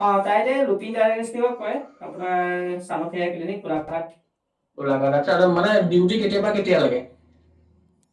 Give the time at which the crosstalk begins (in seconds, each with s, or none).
none